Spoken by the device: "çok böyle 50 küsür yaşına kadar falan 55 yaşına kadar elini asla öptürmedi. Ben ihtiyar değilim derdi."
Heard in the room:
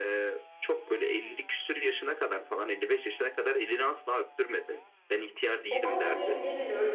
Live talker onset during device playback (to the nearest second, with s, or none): 6 s